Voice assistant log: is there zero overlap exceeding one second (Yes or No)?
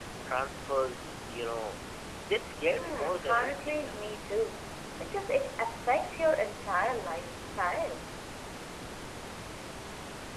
No